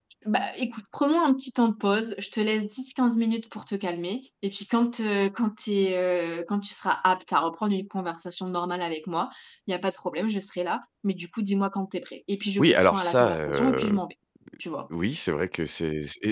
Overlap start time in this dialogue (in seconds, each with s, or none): 12.6 s